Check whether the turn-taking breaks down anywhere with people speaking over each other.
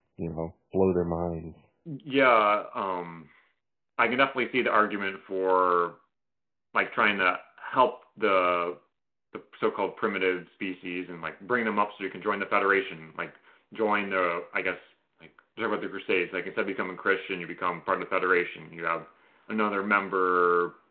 No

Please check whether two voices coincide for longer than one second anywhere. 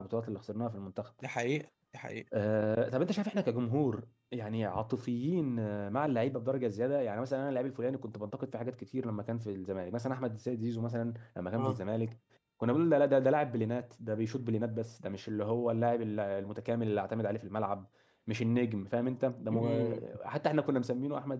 No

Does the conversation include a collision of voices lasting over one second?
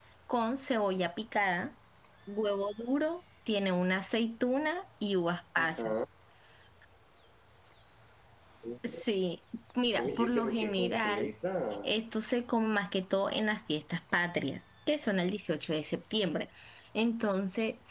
Yes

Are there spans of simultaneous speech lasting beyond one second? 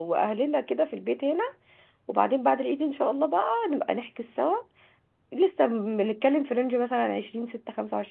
No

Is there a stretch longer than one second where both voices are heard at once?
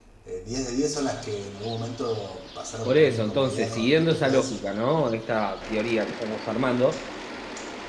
Yes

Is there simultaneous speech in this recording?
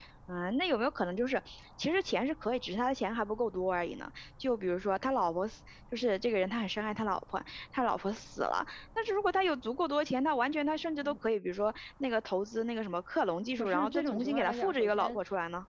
Yes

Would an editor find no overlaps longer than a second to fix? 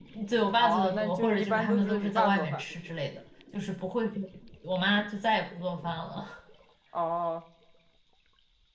No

